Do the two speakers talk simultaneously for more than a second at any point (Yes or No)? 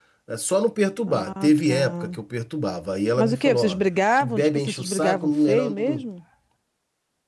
Yes